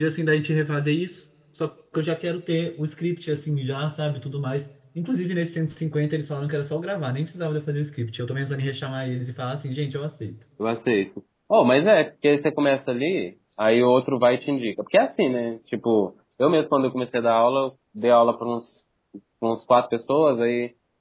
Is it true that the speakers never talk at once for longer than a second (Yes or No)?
Yes